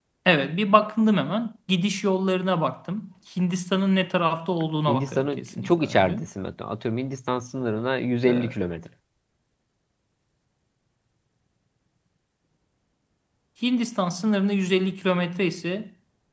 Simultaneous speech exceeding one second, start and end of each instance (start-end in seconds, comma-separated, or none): 4.9-6.2